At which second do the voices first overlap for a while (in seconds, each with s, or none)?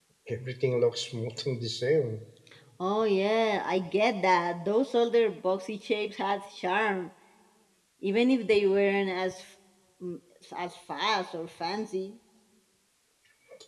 none